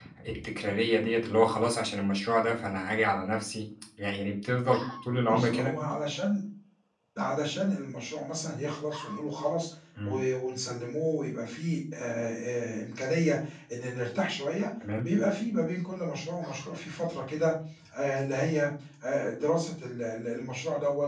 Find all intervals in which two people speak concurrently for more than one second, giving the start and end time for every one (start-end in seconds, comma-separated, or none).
none